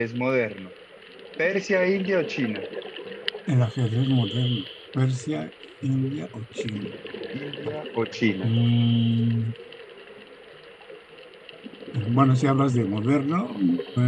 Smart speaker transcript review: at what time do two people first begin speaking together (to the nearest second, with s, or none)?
none